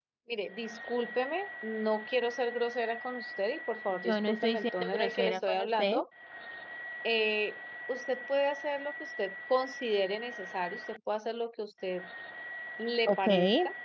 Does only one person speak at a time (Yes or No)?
No